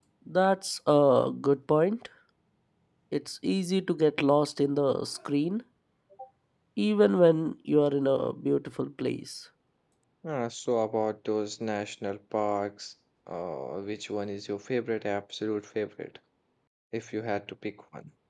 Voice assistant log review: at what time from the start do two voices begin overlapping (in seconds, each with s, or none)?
none